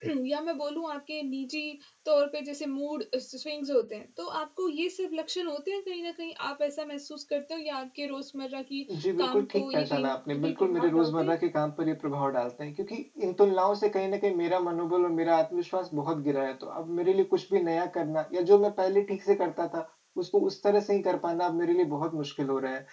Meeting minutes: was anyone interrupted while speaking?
Yes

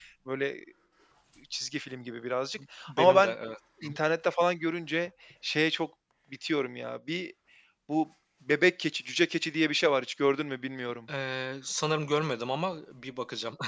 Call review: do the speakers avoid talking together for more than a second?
Yes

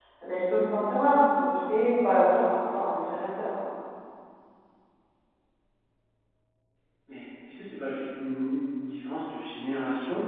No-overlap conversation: Yes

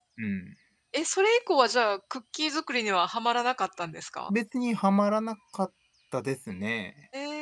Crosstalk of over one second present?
No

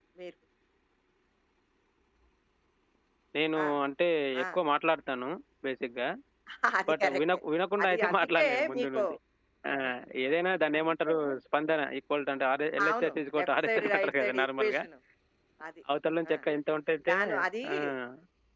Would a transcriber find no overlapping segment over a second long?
No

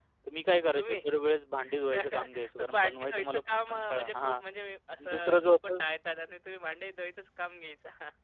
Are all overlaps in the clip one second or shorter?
No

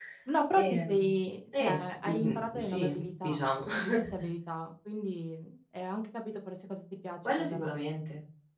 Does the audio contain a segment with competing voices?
Yes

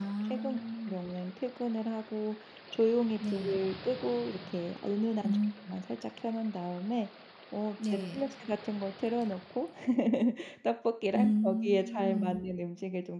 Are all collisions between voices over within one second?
No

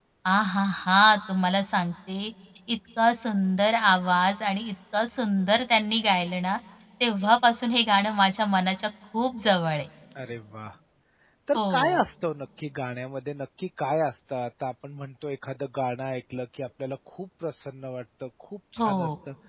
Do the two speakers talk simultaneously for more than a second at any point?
No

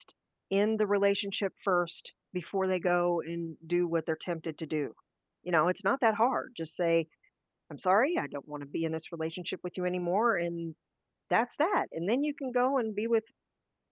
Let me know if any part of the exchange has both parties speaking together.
No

